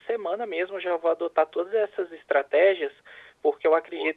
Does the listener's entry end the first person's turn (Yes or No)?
No